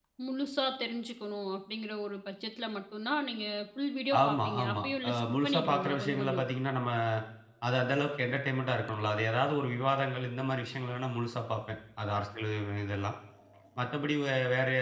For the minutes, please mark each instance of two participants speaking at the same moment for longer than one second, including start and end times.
4.2-6.5

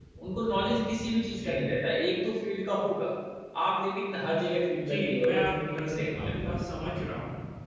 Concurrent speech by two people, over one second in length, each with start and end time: 4.9-6.6

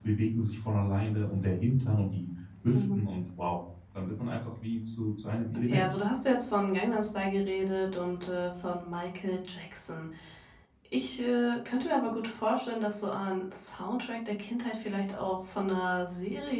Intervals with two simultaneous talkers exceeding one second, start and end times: none

